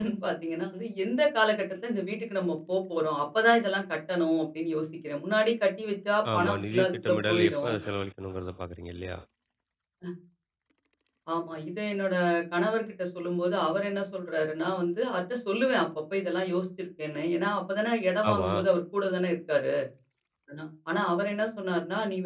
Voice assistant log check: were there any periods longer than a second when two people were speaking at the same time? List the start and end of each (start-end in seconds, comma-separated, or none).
6.3-7.7